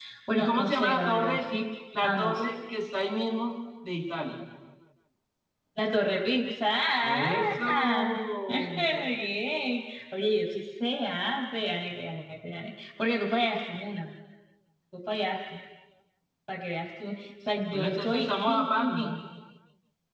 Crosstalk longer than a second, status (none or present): present